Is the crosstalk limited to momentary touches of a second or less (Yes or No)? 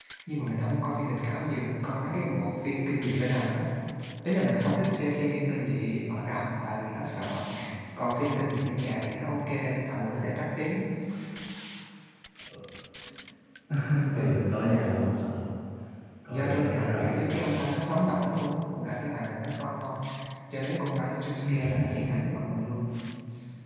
No